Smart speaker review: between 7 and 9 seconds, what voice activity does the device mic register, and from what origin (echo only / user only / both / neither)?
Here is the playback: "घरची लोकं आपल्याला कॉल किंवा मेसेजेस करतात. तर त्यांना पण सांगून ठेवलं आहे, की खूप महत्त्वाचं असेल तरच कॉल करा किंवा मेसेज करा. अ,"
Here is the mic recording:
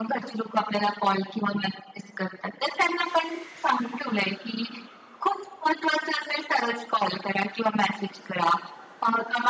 echo only